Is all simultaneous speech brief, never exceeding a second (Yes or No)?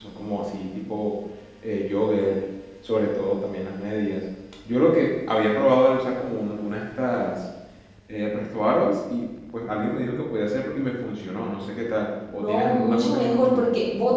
No